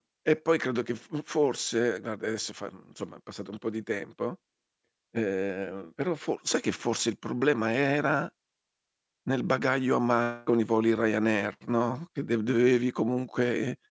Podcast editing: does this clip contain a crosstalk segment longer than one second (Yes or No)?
No